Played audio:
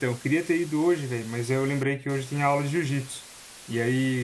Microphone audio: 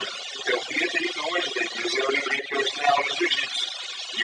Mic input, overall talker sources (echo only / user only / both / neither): echo only